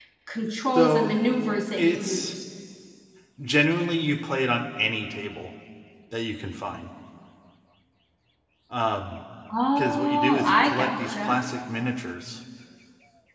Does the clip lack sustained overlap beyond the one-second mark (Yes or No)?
No